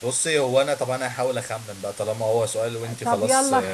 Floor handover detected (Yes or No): Yes